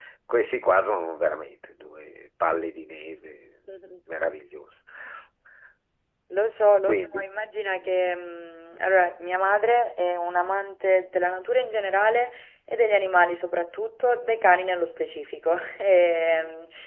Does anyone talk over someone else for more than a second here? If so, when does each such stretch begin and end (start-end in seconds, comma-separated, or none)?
none